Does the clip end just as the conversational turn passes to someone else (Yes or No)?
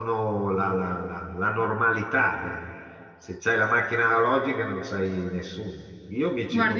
Yes